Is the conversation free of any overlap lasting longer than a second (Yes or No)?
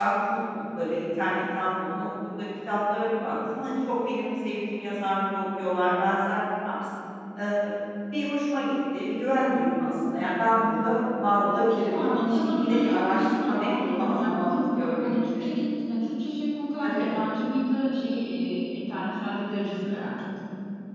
No